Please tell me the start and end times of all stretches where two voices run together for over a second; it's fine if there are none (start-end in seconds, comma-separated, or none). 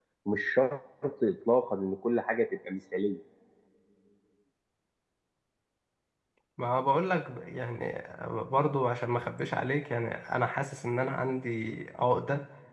none